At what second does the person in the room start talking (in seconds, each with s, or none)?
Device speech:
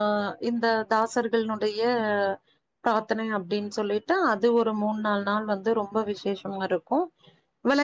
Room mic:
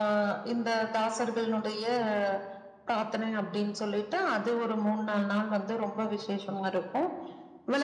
none